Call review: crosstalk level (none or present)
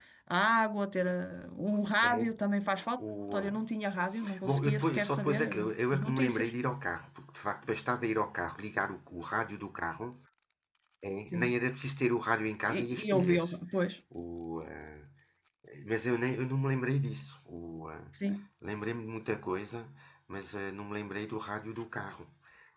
present